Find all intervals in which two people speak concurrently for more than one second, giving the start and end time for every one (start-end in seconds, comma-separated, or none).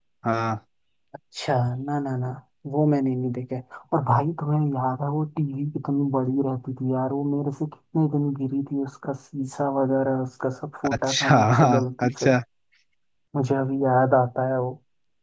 10.9-12.3